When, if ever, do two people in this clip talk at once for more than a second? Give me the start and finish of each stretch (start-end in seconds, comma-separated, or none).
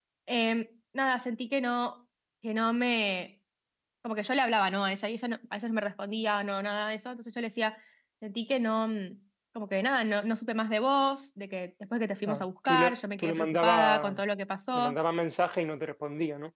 12.3-14.2